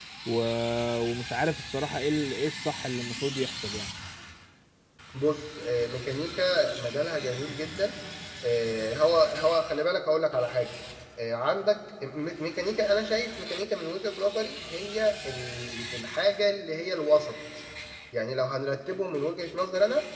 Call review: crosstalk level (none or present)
none